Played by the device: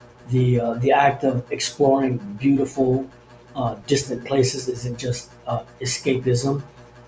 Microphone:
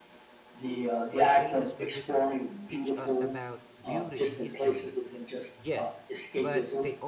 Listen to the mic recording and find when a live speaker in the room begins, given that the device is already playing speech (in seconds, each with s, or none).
1.1 s